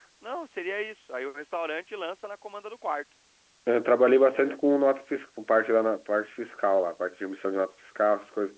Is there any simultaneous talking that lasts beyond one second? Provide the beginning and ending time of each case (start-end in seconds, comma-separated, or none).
none